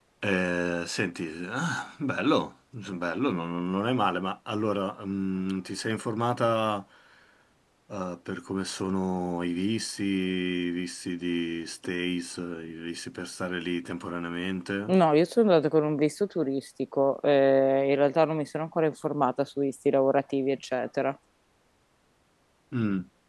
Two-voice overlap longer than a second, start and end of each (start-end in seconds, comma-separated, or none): none